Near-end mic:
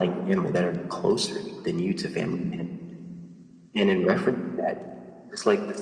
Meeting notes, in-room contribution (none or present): none